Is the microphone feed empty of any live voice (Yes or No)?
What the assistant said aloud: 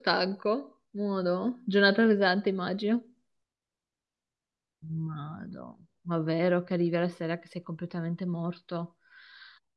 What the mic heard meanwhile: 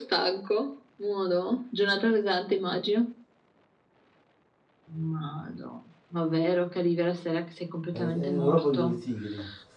No